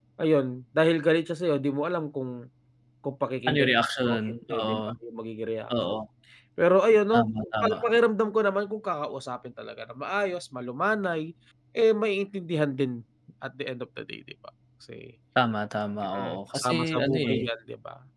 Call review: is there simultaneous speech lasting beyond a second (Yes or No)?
Yes